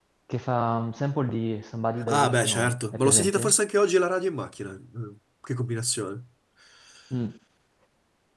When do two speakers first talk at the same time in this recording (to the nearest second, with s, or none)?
2 s